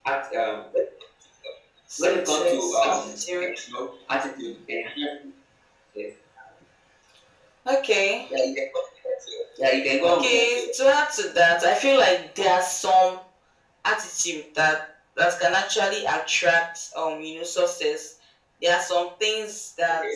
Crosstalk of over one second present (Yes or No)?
Yes